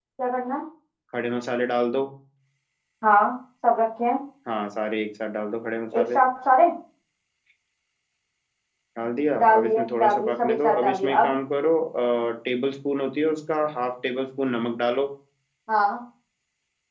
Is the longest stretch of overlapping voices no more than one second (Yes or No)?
No